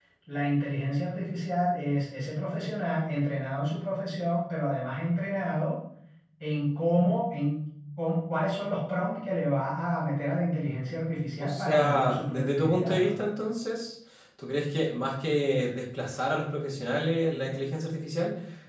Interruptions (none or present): present